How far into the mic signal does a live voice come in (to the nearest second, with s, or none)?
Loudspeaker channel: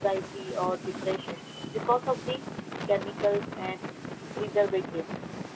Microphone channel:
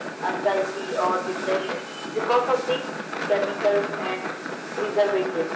none